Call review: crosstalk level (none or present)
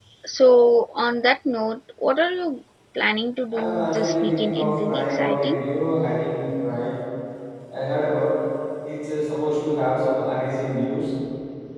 present